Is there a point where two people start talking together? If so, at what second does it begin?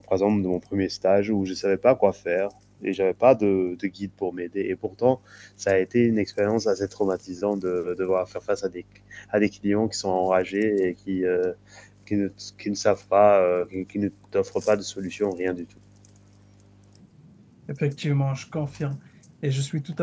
none

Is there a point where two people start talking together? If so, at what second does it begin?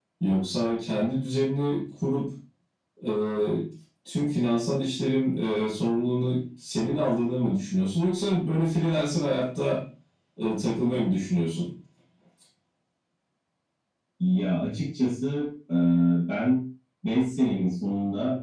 none

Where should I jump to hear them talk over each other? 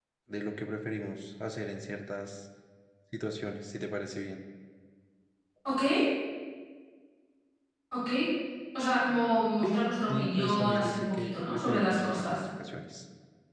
9.6 s

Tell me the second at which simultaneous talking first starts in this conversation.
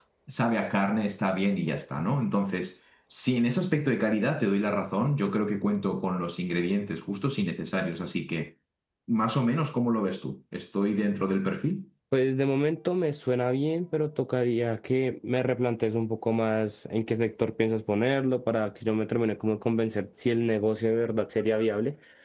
none

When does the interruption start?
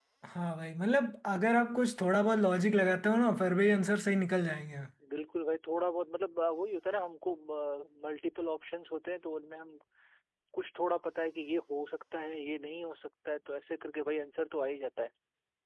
none

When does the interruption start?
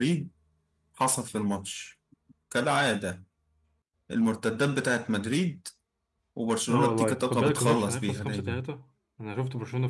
6.7 s

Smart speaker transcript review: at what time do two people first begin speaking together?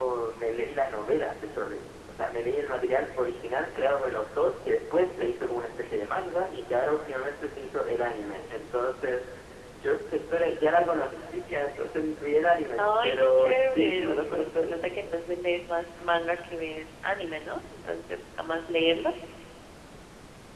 12.8 s

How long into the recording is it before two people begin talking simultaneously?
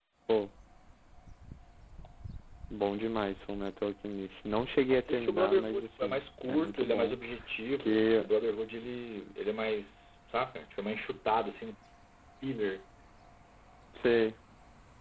4.9 s

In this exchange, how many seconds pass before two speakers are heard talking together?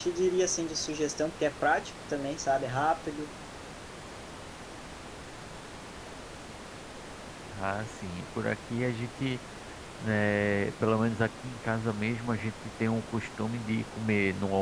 none

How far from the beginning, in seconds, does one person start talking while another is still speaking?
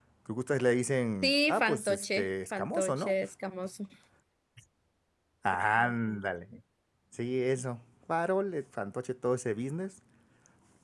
1.2 s

